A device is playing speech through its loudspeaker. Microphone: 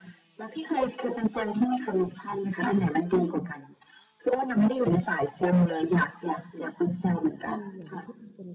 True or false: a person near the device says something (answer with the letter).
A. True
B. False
A